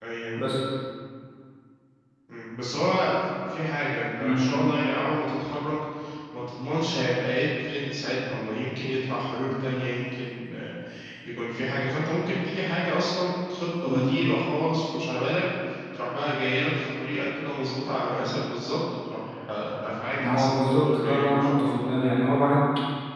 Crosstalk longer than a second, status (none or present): present